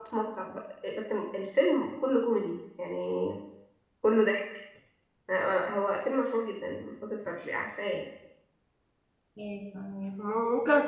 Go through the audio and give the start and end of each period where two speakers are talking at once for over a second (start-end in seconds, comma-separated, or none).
none